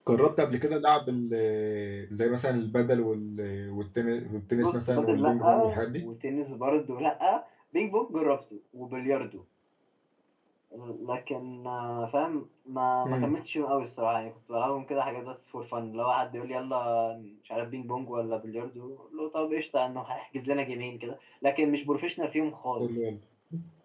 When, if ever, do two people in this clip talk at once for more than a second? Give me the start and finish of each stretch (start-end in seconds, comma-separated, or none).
4.6-6.0